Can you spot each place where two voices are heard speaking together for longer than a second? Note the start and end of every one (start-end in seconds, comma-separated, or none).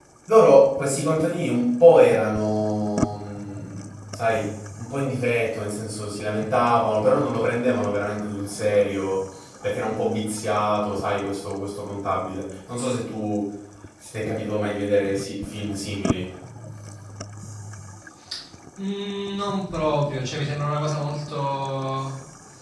none